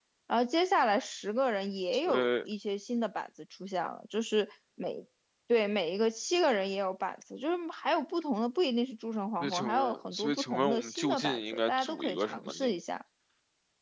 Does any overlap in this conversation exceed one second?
Yes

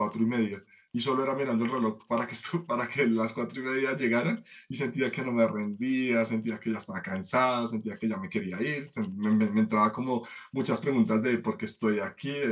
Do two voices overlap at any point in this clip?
No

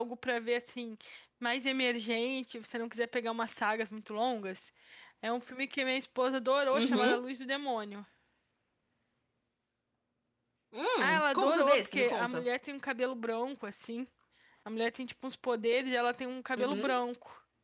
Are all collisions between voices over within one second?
No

